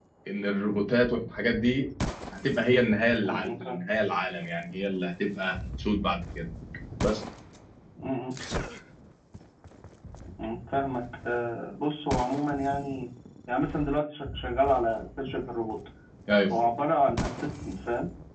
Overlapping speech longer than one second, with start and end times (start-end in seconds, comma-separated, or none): none